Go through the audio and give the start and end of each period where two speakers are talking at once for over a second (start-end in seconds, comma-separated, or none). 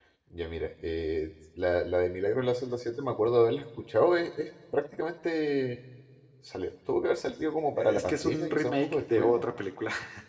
7.8-9.6